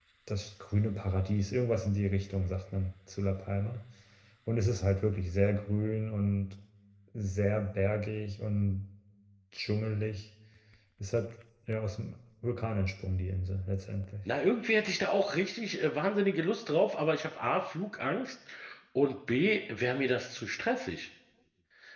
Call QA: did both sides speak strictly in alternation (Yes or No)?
Yes